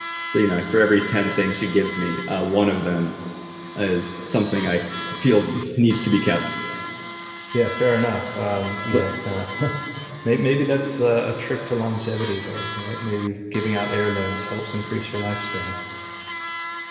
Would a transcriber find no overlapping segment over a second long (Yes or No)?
Yes